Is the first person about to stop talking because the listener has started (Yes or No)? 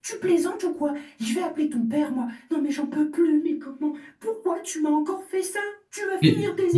Yes